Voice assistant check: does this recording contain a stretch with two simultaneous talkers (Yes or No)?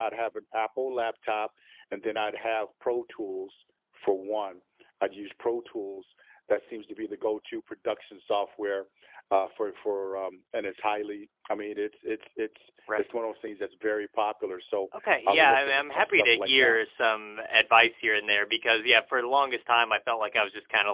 Yes